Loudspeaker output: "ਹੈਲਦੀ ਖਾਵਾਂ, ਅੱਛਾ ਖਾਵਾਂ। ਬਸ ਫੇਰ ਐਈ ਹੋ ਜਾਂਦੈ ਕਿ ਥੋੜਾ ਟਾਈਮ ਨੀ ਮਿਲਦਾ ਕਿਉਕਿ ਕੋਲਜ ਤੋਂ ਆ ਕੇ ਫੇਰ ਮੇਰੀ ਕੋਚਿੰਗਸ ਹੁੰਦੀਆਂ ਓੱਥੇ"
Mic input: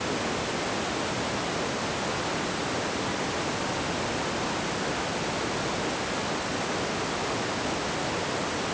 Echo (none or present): none